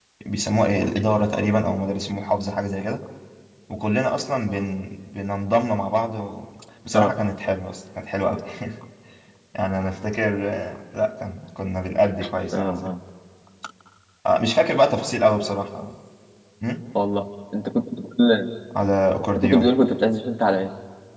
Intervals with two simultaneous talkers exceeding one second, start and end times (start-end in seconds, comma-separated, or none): none